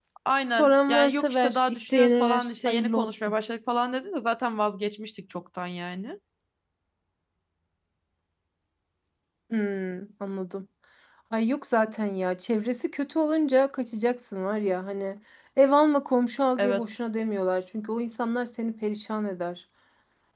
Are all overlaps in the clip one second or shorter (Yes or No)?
No